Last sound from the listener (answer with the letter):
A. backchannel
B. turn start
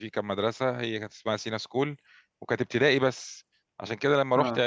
A